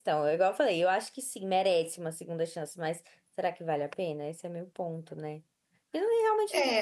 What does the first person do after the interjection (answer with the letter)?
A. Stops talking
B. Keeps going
A